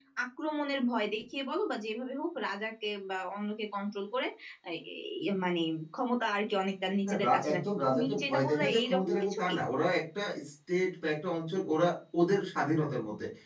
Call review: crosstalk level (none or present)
present